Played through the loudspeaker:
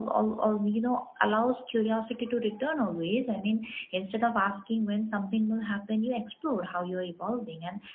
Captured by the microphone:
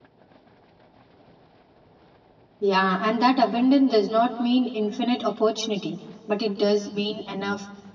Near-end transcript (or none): Yeah, and that abundance does not mean infinite opportunity, but it does mean enough